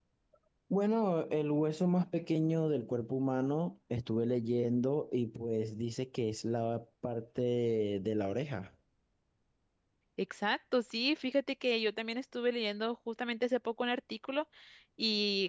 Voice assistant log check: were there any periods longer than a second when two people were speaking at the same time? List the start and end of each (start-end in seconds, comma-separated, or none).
none